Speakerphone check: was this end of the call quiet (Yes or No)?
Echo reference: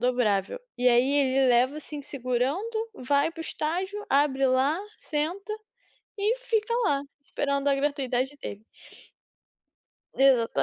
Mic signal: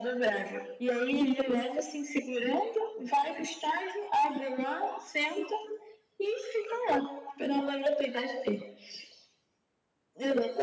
Yes